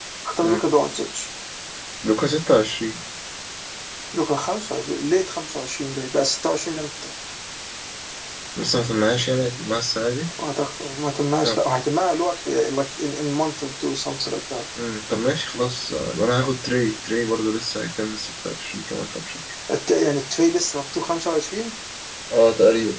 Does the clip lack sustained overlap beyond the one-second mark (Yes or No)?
Yes